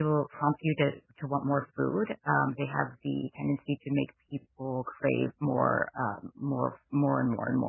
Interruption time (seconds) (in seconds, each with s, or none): none